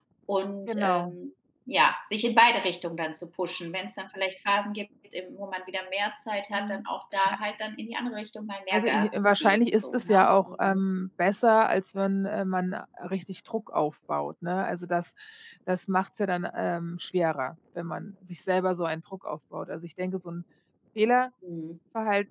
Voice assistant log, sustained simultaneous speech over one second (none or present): present